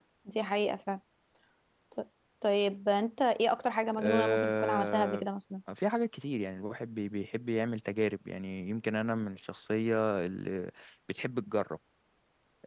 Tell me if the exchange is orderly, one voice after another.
No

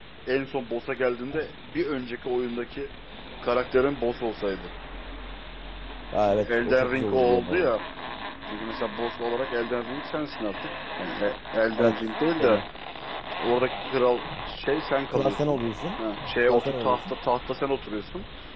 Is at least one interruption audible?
Yes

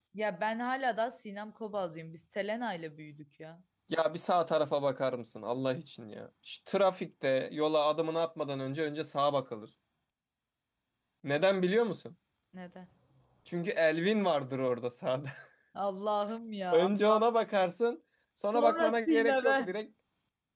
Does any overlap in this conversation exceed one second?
Yes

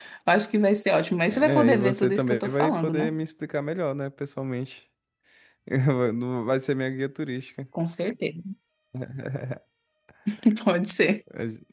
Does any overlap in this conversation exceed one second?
Yes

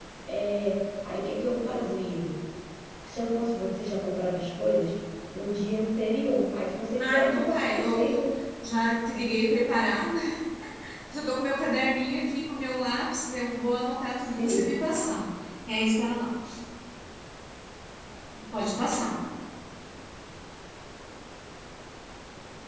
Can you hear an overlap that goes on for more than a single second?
Yes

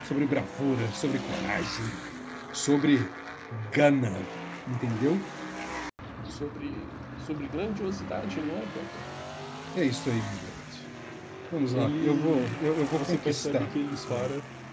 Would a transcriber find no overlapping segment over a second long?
No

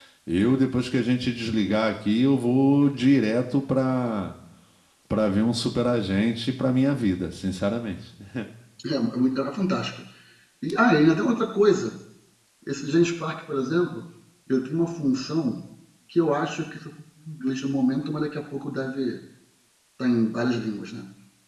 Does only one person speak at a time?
Yes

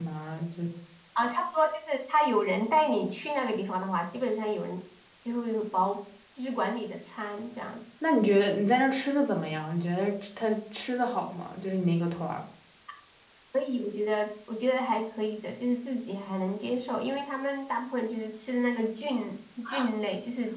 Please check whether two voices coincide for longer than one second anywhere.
No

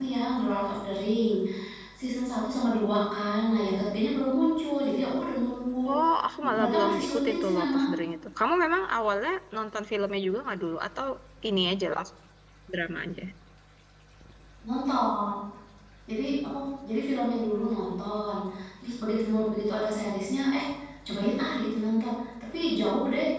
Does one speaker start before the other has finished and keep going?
Yes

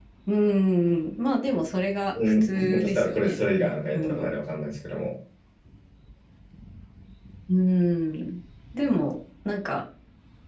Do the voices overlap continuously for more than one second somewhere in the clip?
Yes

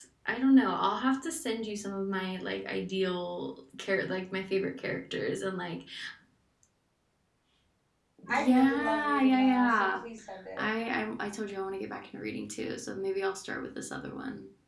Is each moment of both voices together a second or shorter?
No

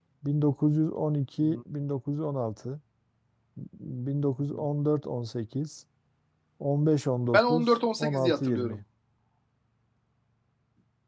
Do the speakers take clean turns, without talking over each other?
No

